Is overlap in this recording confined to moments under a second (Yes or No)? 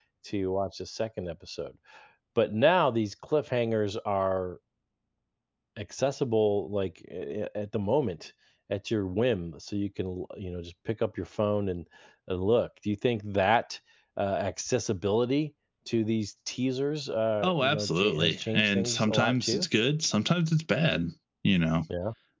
No